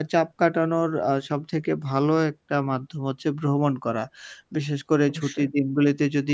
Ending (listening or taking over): listening